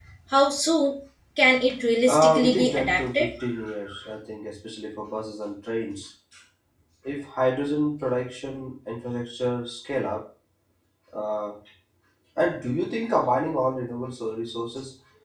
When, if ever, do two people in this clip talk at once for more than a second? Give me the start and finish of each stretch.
2.1-3.3

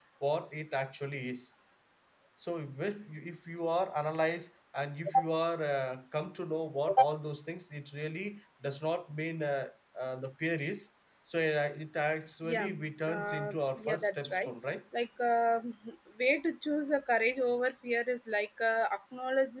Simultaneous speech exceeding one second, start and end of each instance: 13.1-14.5

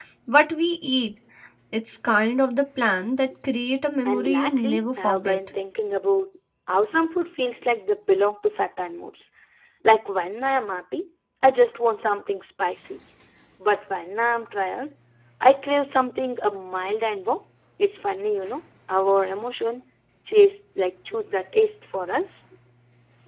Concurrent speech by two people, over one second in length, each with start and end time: 4.0-5.4

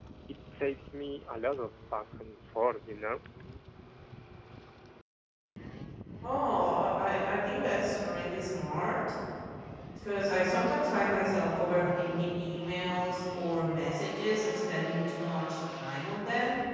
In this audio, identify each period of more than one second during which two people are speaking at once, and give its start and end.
none

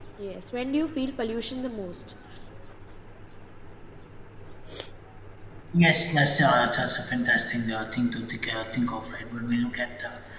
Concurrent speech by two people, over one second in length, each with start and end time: none

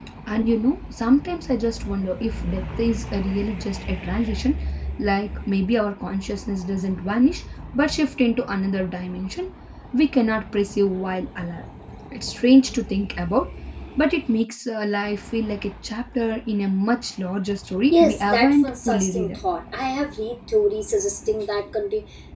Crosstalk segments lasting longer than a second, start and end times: 17.9-19.4

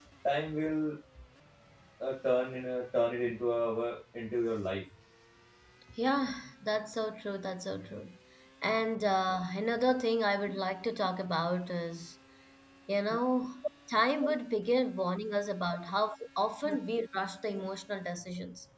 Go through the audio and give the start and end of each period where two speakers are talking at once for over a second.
none

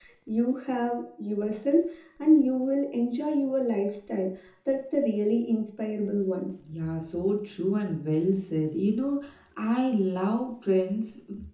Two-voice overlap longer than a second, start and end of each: none

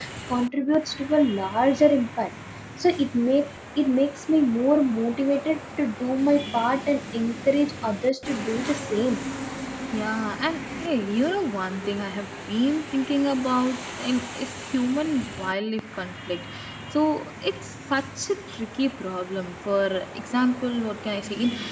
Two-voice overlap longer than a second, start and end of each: none

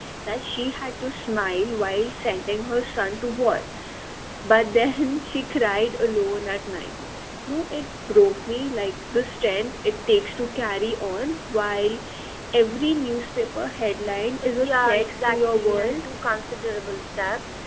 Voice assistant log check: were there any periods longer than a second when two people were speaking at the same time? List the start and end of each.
14.4-16.0

